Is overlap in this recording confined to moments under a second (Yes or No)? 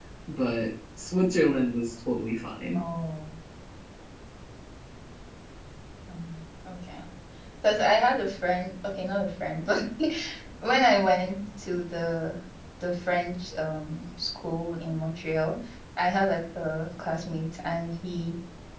Yes